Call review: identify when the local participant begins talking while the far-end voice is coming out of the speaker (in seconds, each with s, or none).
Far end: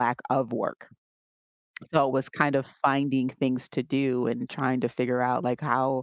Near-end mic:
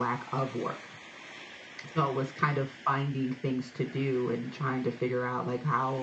none